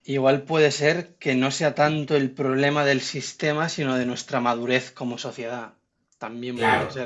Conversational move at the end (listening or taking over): taking over